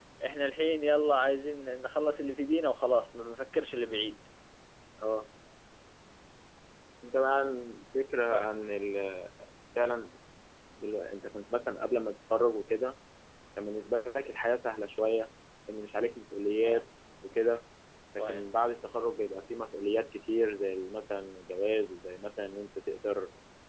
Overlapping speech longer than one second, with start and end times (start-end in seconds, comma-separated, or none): none